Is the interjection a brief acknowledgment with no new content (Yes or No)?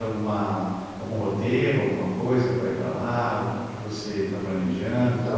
No